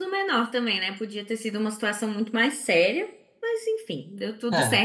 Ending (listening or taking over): listening